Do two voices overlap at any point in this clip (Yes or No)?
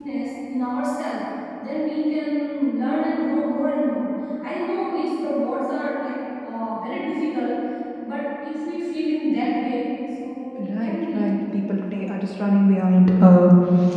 Yes